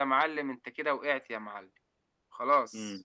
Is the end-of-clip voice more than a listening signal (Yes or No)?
Yes